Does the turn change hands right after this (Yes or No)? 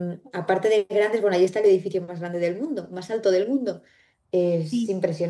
No